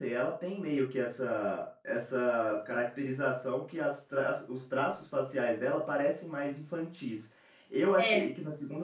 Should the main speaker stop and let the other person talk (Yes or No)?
No